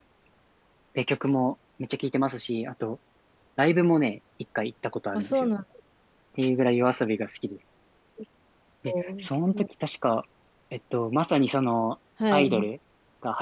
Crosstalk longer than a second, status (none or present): none